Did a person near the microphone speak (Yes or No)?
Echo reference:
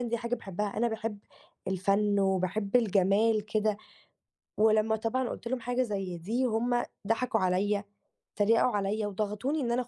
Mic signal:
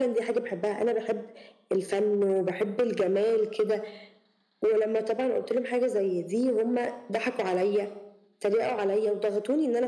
No